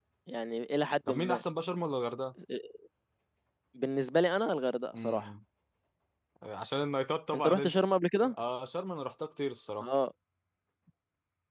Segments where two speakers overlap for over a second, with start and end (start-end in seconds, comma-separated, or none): none